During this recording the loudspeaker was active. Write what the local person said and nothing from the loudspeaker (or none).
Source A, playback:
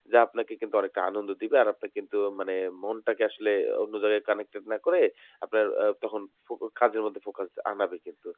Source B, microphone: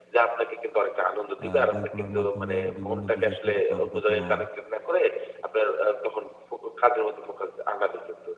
আ বই পড়ার মাধ্যমে বিভিন্ন বিষয় সম্পর্কে অবগত হওয়া,